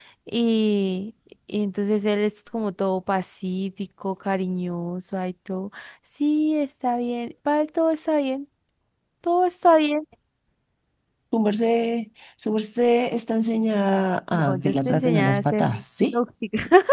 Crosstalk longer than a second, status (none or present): present